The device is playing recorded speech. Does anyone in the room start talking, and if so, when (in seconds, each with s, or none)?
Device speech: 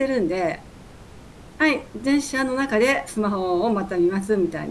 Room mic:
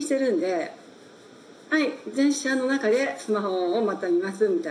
none